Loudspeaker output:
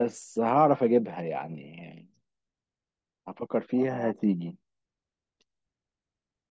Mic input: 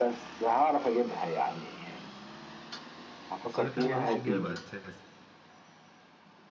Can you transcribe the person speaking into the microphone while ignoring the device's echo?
السؤال التاني ملوش اجابة اساسا

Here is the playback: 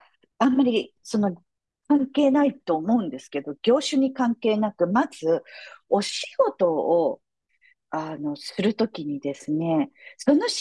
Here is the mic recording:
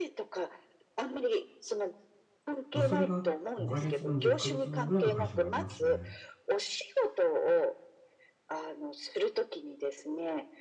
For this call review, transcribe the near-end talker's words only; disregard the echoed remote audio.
まあ、それが5ヶ月分、10ヶ月分ぐらいの会社もありますね。

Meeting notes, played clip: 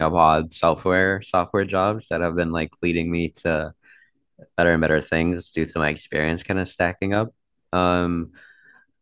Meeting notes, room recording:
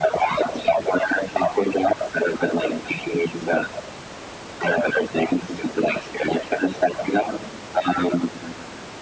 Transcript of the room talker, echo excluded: none

